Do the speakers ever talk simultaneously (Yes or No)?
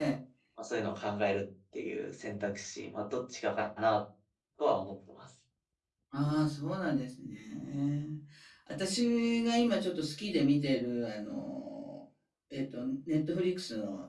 No